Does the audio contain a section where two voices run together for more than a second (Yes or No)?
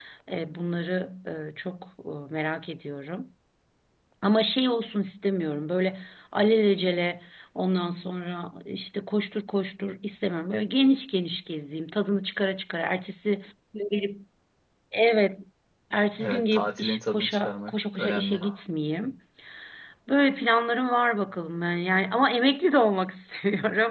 Yes